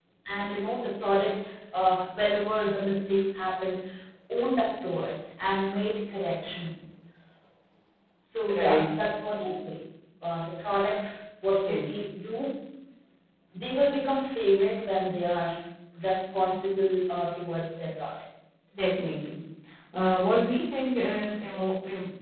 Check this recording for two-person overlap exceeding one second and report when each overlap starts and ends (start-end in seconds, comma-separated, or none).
none